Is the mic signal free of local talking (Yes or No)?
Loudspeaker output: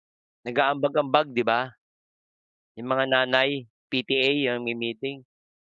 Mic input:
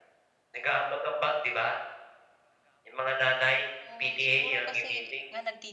No